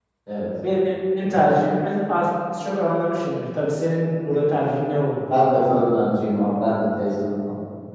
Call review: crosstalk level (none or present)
none